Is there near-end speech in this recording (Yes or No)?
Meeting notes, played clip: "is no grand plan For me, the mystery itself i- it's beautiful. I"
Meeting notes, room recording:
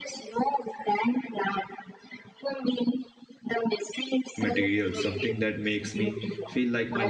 Yes